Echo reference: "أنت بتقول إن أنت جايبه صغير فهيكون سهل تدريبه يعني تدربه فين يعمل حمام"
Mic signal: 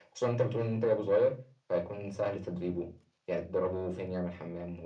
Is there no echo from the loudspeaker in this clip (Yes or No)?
No